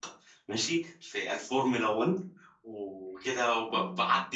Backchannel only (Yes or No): Yes